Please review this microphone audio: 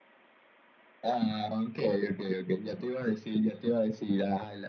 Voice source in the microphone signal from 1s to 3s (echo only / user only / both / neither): echo only